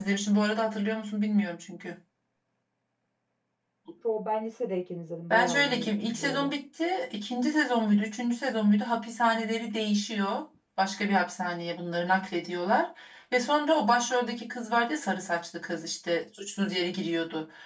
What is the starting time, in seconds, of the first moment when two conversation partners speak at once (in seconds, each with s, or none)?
5.3 s